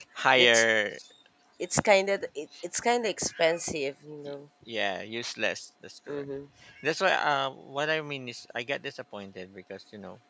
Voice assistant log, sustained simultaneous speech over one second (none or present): none